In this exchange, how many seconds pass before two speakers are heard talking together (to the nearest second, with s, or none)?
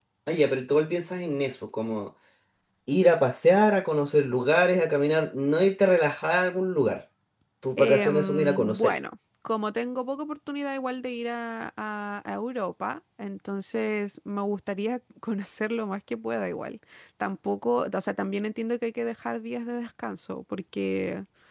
8 s